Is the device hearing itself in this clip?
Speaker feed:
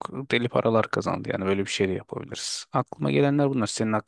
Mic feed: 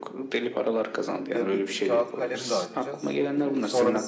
Yes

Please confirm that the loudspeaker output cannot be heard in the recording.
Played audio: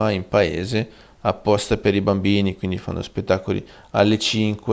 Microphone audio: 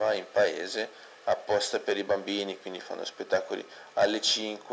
No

